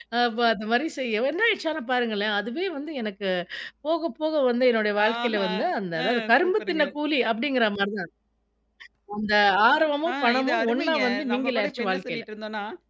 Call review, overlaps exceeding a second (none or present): present